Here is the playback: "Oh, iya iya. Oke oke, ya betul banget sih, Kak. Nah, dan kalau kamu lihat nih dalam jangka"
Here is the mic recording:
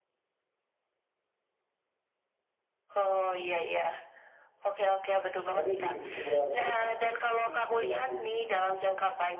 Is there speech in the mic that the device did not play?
Yes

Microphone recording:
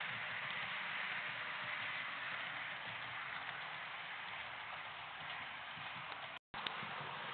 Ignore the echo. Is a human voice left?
No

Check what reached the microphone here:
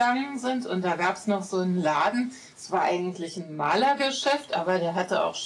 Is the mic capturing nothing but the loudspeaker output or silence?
Yes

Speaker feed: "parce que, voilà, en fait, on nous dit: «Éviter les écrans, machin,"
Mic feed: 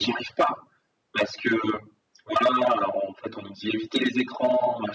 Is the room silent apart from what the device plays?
Yes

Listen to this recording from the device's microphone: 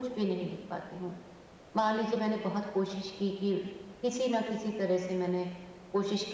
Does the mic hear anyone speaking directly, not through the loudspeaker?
No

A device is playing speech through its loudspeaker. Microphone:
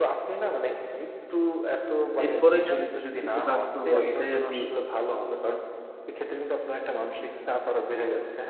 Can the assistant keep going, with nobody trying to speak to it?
No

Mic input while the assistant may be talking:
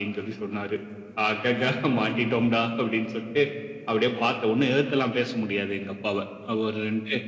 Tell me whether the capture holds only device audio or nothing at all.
Yes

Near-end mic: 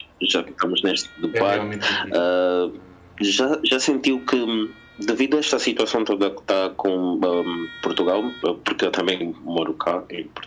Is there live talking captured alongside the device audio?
Yes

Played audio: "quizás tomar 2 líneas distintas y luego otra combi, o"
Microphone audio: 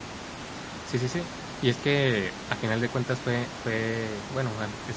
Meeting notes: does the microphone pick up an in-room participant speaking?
Yes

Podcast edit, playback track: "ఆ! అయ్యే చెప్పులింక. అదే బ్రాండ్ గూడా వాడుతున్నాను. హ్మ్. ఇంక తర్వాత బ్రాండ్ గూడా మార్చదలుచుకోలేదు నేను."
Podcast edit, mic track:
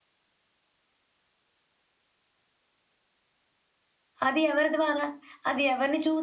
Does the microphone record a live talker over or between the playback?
Yes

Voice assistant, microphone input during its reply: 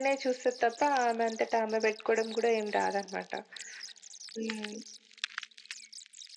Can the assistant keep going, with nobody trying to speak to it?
Yes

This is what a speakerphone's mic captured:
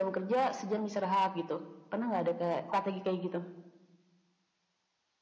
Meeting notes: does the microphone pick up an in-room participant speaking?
No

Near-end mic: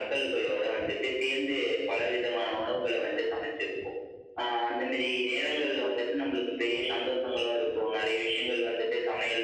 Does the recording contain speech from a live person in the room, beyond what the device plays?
No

